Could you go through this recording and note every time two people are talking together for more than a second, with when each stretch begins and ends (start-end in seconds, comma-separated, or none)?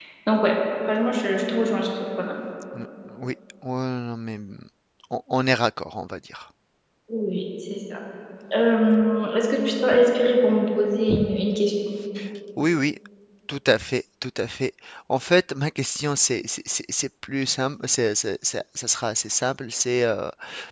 none